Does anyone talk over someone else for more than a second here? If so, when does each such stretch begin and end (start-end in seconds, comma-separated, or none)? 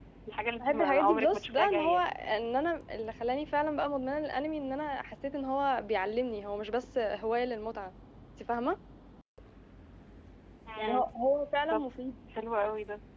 0.6-2.1